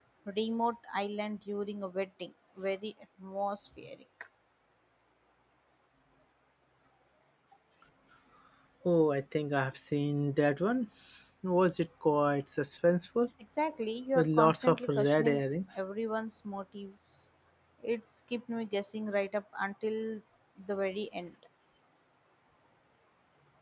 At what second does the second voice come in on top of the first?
14 s

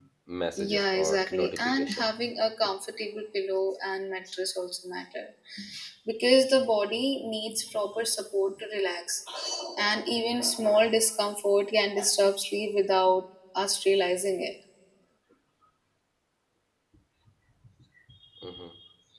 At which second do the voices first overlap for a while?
1 s

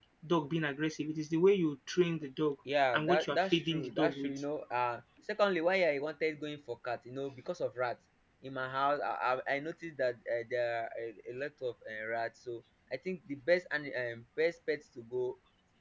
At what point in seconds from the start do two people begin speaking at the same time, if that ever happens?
3 s

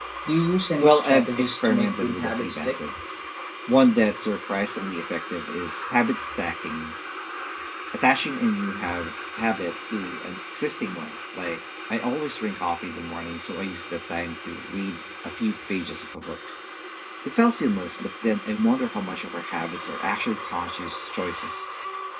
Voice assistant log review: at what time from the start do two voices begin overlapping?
1 s

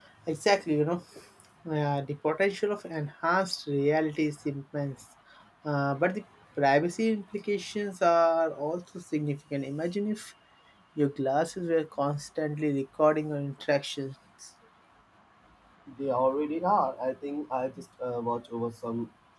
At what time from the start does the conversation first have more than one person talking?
none

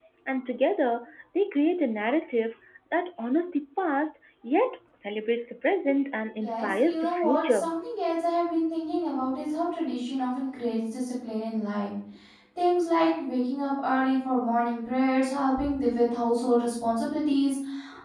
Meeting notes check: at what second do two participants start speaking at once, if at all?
6 s

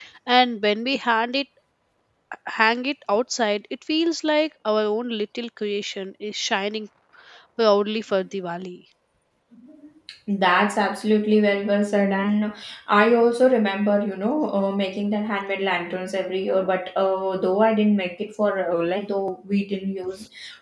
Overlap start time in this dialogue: none

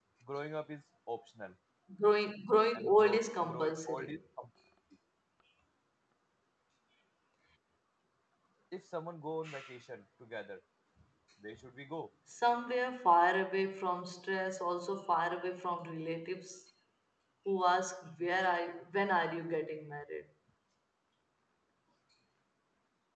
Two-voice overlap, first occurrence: 3 s

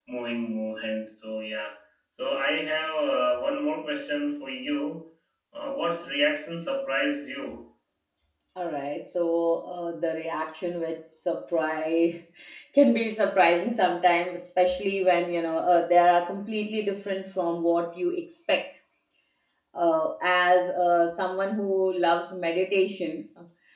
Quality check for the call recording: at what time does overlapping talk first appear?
none

